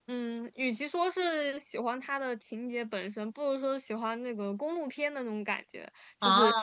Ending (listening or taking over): listening